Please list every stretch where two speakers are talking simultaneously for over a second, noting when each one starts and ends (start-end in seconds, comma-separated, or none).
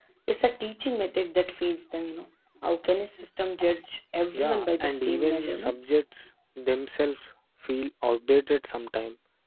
4.3-5.7